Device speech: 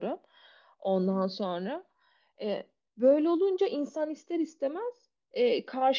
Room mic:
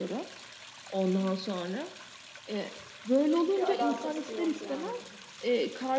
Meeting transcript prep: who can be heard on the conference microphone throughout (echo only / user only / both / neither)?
both